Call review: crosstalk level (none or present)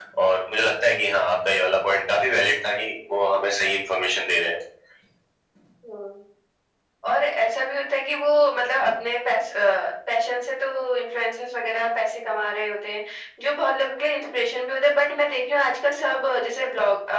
none